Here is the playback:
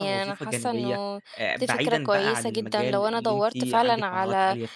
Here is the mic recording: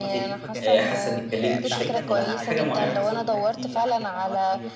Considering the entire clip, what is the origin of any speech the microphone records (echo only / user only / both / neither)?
both